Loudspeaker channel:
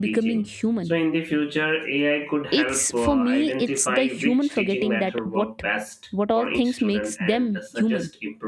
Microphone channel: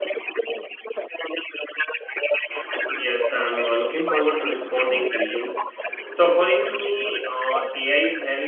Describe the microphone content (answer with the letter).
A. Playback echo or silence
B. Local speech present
B